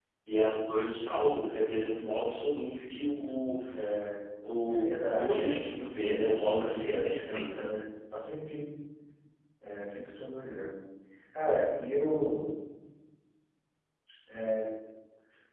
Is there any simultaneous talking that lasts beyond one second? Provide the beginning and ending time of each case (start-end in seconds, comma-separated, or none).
4.7-7.7